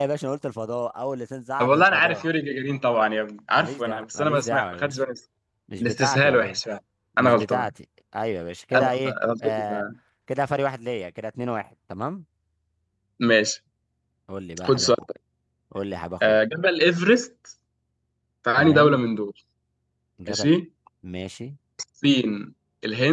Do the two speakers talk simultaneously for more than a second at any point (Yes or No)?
Yes